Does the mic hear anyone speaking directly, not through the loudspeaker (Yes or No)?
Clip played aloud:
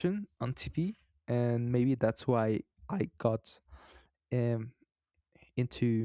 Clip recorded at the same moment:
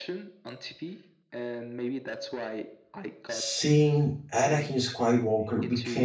Yes